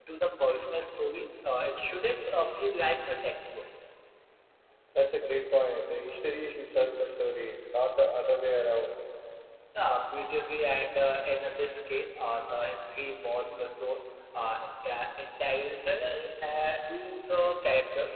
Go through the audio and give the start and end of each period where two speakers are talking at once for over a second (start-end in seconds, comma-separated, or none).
none